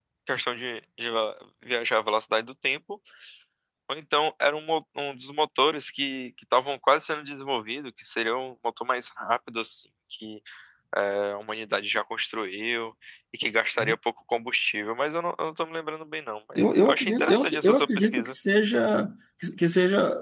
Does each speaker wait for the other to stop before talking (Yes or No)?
No